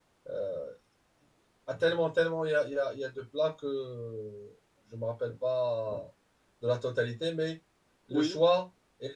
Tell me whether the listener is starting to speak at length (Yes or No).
No